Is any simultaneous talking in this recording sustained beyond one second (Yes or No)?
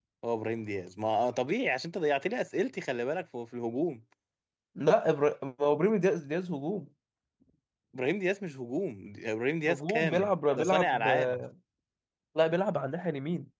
Yes